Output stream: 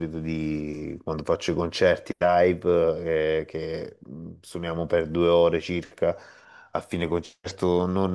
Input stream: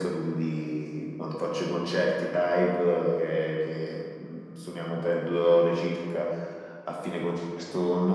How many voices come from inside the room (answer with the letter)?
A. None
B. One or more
A